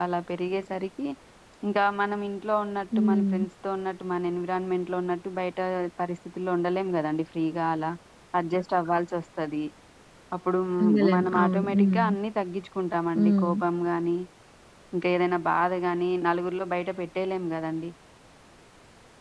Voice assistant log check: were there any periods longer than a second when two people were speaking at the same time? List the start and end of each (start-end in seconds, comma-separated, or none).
10.8-12.1